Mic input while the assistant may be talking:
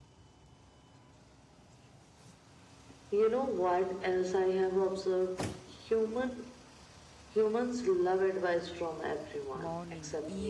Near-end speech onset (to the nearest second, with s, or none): 10 s